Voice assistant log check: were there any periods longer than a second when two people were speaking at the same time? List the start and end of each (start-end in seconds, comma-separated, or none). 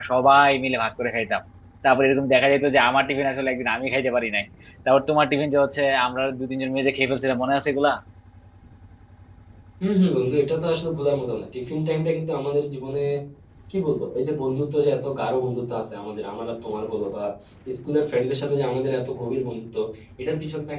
none